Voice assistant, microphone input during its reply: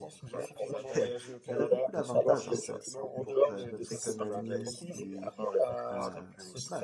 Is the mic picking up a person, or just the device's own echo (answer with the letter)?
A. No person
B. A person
B